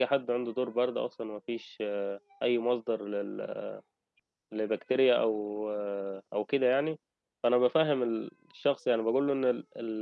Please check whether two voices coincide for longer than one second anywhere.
No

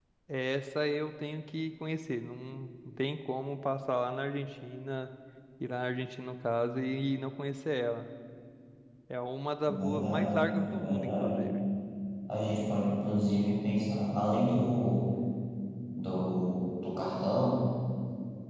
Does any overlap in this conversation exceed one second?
Yes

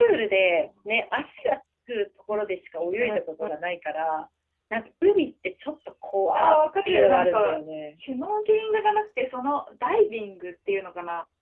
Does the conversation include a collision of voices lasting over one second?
Yes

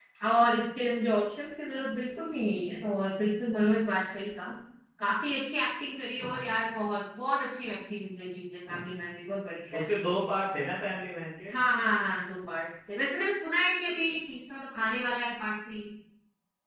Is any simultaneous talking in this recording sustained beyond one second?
No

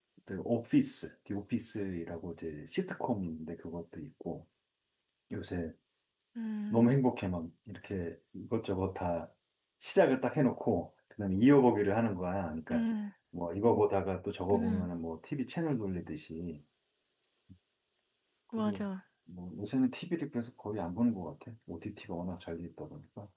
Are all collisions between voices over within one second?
Yes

